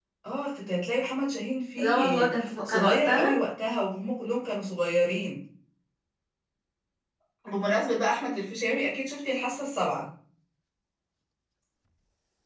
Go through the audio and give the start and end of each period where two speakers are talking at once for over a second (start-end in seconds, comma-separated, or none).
1.8-3.4